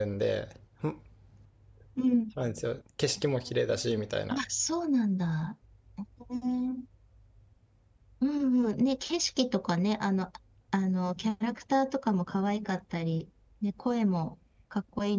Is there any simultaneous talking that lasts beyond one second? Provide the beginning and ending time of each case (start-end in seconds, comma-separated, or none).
none